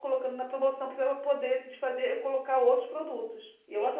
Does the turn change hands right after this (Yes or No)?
Yes